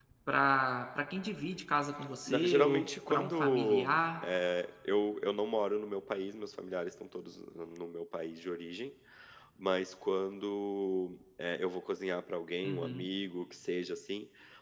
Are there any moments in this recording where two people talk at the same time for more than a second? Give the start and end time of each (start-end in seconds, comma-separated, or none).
2.3-4.0